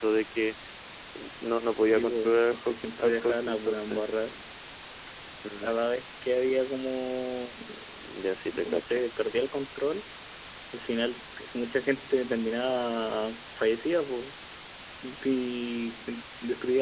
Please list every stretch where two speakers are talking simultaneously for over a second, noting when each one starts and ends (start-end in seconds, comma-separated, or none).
1.9-4.0